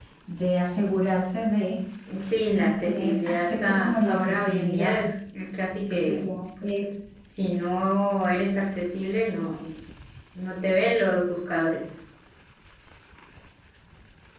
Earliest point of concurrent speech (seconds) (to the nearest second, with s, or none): 3 s